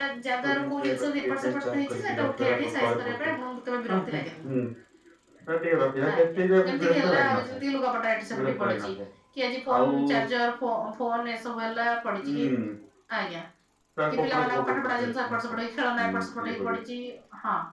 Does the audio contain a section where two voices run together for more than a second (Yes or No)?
Yes